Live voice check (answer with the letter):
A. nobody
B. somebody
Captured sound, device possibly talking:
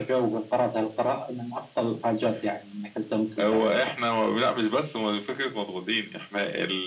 A